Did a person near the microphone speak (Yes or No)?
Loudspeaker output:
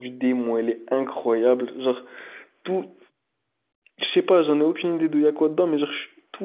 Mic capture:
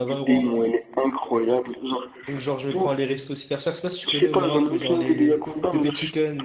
Yes